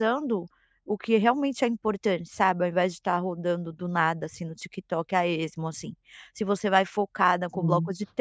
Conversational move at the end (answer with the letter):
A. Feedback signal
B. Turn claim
A